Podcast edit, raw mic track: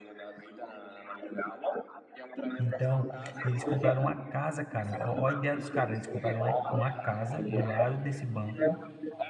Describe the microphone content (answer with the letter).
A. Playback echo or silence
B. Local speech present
B